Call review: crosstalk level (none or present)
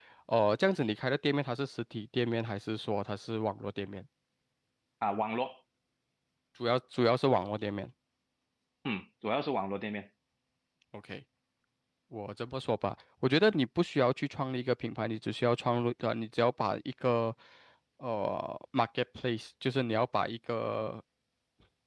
none